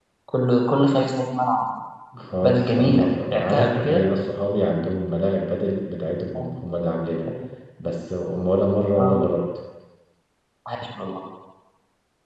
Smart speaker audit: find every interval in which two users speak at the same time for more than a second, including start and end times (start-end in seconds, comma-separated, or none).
2.4-4.0